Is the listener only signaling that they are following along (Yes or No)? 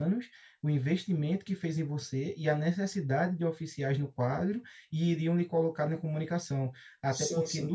Yes